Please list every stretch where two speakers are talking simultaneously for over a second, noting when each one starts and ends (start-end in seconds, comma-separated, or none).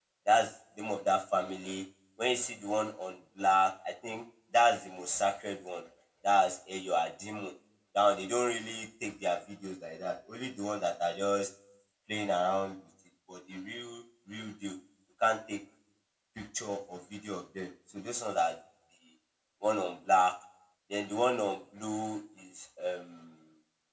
none